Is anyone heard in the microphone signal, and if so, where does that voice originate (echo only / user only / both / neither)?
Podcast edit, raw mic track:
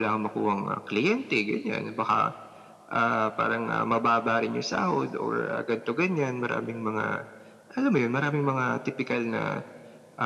echo only